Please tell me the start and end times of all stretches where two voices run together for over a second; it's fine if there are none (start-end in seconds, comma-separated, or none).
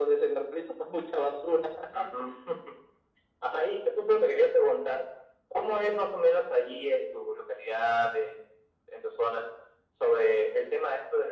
none